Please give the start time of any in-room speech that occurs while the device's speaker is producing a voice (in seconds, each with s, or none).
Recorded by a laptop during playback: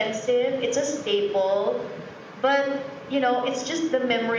none